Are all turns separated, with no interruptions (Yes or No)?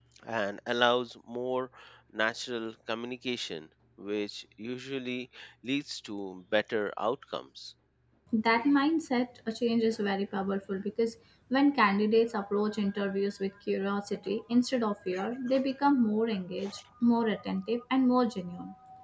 Yes